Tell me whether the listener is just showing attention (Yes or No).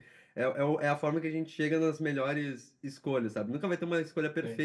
Yes